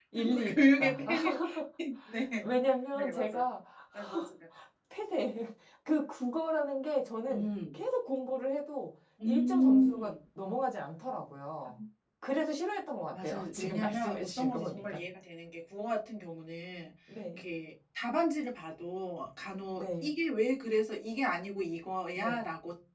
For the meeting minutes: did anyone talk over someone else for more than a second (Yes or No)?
Yes